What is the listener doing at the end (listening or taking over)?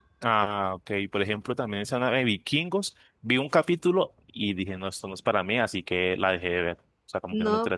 taking over